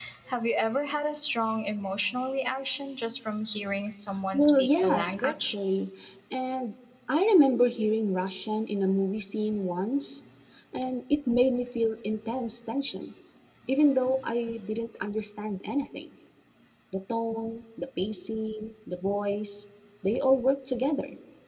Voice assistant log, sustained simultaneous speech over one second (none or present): present